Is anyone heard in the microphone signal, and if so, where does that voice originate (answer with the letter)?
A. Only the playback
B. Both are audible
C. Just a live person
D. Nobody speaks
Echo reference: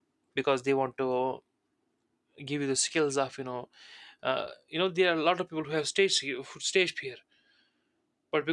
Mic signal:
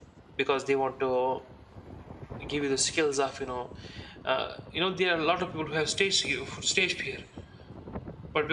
A